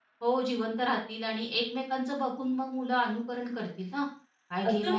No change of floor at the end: No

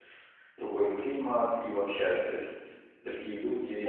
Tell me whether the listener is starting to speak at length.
Yes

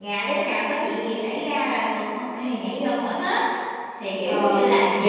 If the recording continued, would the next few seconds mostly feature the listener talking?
Yes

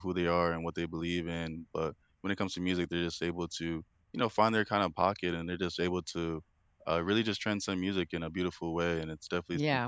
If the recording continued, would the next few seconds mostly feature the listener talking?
Yes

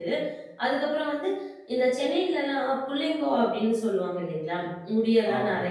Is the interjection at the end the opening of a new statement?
No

